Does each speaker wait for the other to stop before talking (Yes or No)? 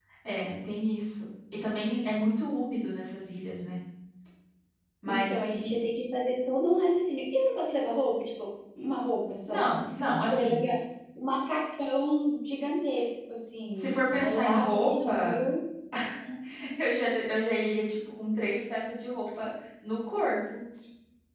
No